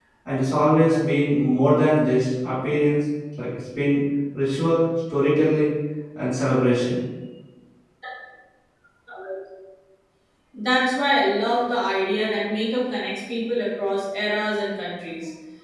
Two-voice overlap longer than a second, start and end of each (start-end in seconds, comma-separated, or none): none